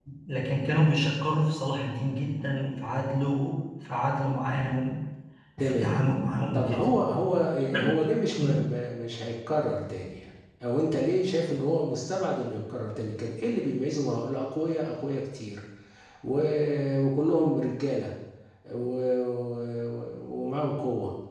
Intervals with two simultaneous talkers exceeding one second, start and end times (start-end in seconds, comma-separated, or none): none